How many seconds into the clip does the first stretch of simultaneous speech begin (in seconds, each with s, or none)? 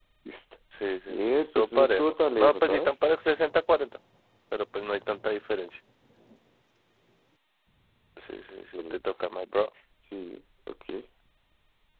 1.1 s